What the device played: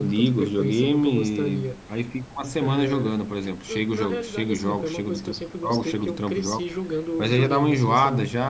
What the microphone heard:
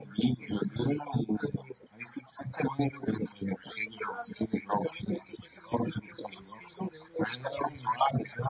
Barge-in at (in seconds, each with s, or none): none